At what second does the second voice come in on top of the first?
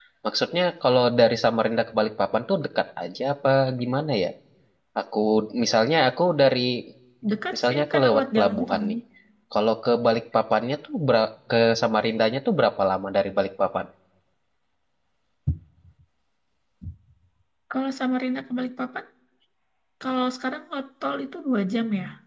8 s

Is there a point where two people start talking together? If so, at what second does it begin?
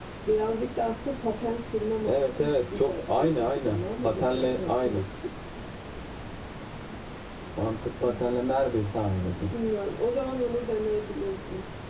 2 s

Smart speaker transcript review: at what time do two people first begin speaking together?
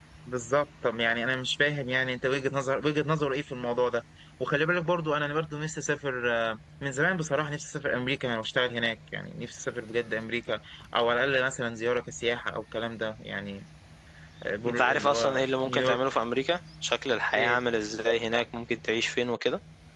15 s

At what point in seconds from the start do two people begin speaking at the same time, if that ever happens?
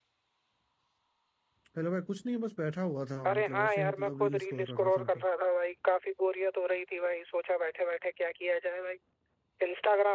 3 s

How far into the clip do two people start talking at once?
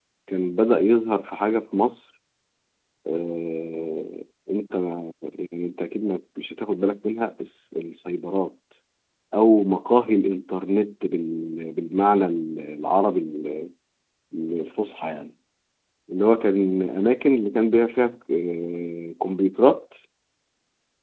none

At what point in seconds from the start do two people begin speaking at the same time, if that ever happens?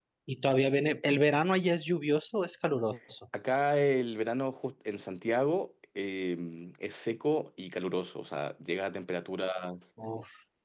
none

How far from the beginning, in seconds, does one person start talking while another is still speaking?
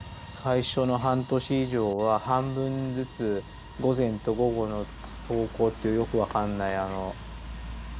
none

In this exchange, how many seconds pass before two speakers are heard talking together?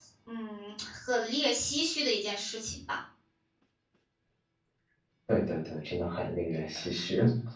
none

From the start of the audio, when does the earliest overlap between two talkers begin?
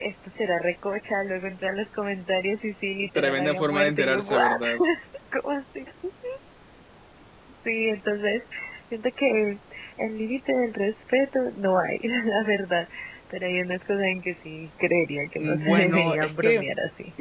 3 s

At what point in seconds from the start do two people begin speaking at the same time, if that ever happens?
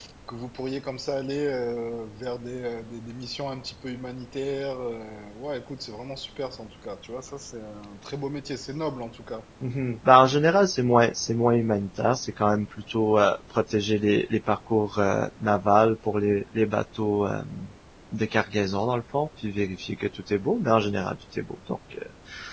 none

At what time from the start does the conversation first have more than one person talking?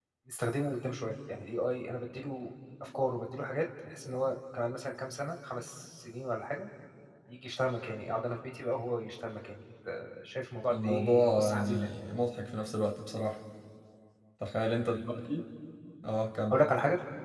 11 s

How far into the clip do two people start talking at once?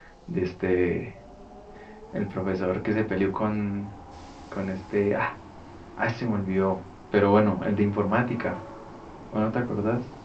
none

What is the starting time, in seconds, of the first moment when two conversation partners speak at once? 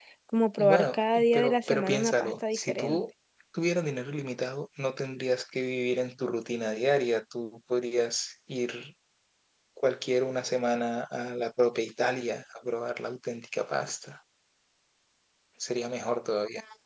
1 s

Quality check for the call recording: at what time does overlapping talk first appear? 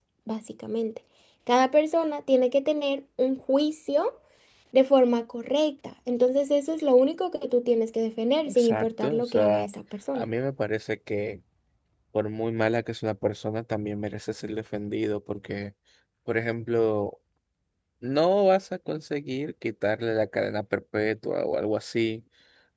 8 s

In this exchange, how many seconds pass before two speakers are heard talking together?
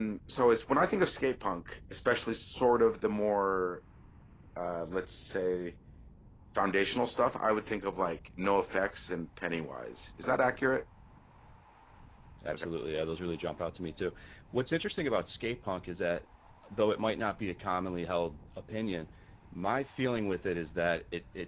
none

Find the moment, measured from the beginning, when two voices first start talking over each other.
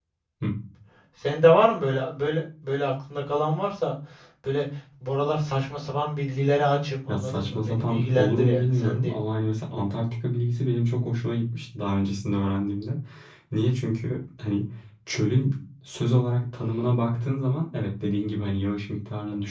7 s

